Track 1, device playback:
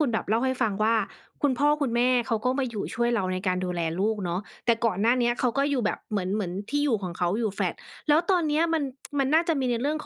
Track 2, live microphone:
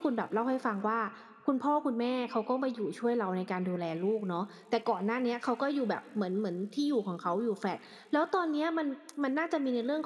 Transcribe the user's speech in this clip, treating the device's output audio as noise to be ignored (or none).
none